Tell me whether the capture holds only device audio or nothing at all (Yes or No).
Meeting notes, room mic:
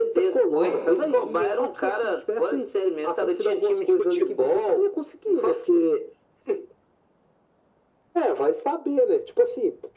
No